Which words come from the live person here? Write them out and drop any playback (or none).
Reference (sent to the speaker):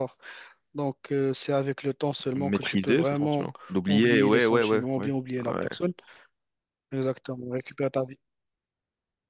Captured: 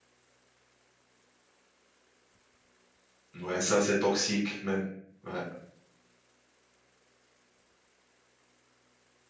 ouais, ça, c'est toxique même. Ouais,